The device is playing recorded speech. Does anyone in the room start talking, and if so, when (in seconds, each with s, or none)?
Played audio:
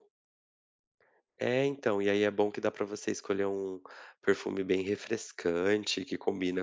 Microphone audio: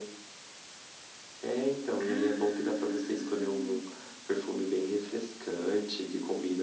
2.0 s